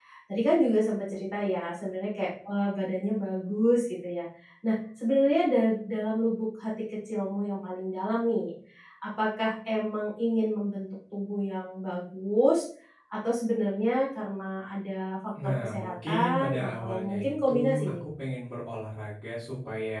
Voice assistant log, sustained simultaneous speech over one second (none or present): present